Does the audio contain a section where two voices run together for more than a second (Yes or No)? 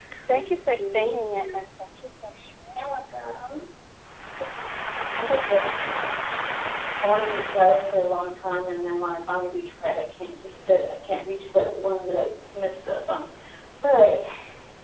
Yes